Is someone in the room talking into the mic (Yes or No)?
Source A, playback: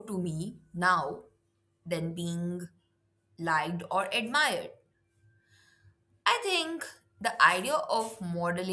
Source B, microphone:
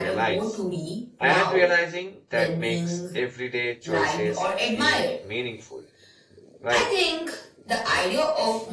Yes